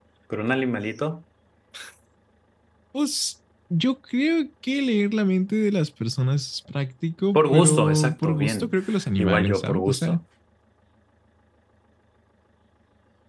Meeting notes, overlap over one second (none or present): present